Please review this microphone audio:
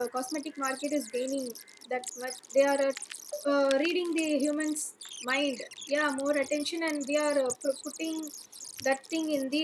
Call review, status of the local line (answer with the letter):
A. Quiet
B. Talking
B